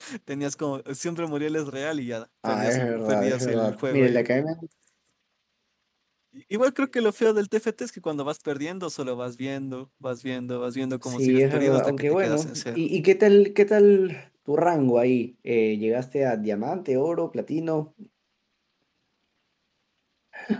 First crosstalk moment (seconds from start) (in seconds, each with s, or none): 2.5 s